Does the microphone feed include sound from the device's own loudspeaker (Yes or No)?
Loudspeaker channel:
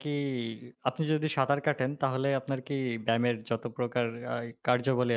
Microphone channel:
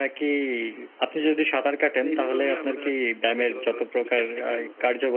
Yes